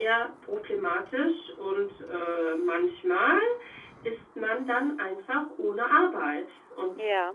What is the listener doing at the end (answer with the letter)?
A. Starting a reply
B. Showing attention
B